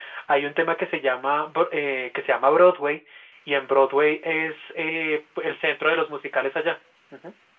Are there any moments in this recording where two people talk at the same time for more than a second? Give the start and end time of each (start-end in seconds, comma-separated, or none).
none